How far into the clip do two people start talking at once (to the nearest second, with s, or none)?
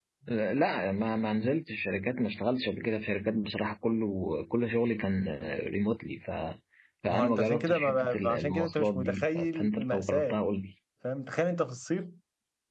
7 s